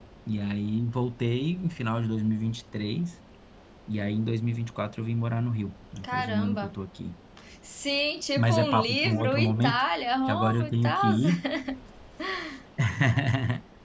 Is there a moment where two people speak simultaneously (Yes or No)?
Yes